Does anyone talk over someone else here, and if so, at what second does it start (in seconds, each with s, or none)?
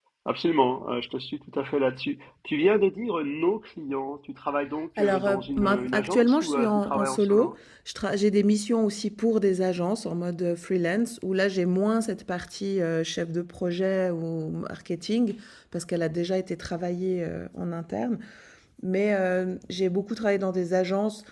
5.0 s